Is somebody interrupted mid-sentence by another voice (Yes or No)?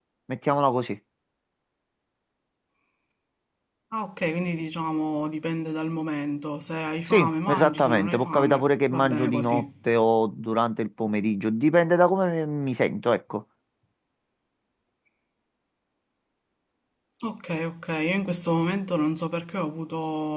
Yes